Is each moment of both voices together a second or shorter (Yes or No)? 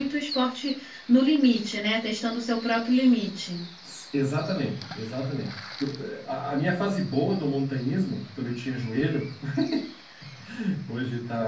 Yes